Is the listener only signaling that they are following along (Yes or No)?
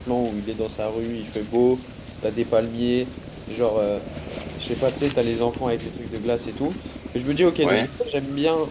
Yes